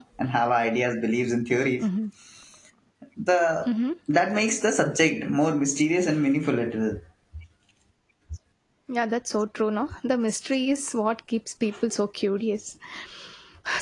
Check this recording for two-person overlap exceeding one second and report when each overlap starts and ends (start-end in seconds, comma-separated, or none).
none